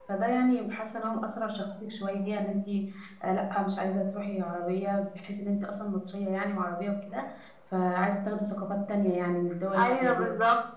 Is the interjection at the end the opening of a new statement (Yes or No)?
Yes